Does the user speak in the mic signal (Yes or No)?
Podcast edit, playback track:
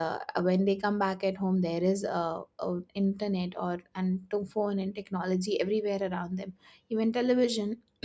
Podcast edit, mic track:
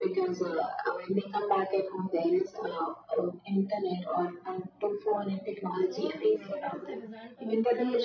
Yes